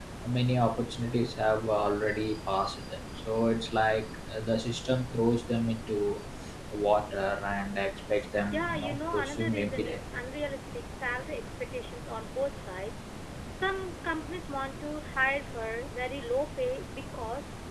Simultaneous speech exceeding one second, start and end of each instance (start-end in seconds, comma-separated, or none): 8.5-10.0